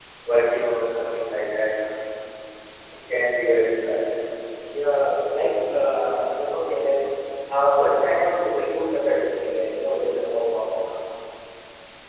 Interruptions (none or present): none